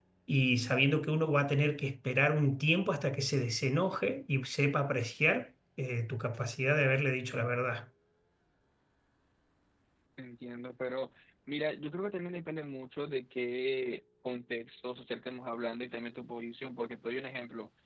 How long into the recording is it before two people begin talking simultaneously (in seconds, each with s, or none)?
none